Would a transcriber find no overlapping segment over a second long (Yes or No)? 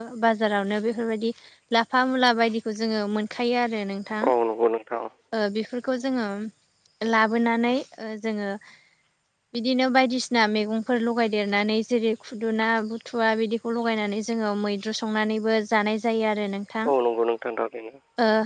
Yes